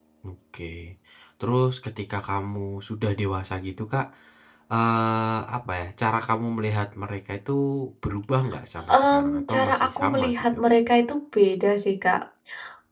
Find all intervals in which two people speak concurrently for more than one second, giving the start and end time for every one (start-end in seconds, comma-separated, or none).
8.9-10.6